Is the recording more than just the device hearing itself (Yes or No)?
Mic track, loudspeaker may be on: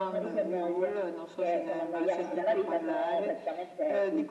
No